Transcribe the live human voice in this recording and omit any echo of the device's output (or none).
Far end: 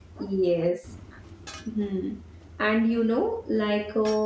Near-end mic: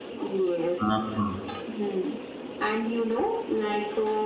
uh-huh.